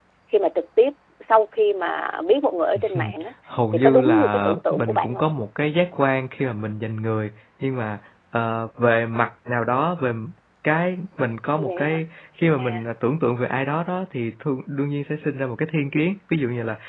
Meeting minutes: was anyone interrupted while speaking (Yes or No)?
Yes